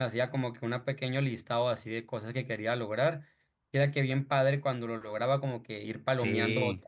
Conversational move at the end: listening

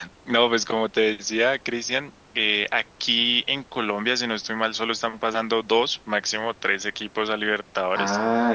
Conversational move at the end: taking over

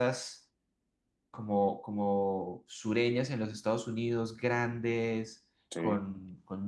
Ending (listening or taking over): listening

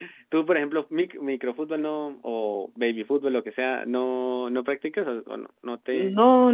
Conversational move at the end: taking over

